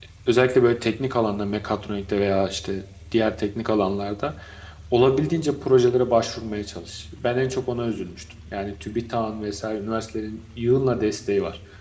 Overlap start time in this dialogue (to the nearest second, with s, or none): none